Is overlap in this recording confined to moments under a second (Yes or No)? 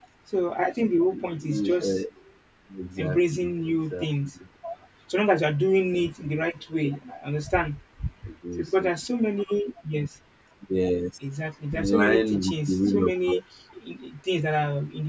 No